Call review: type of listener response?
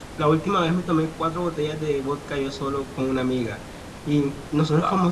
listening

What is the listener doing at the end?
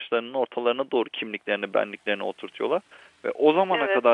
listening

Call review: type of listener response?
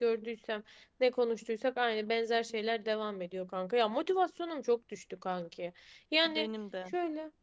listening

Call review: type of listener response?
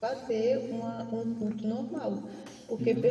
listening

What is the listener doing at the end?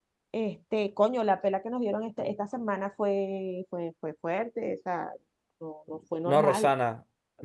taking over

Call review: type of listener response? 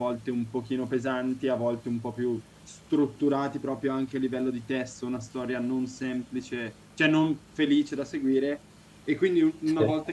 listening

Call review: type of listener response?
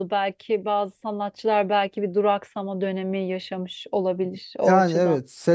taking over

